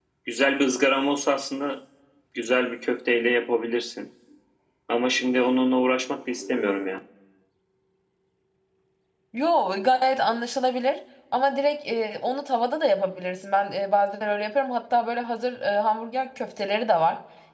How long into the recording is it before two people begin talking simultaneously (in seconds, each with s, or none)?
none